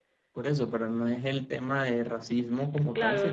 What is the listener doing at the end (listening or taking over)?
taking over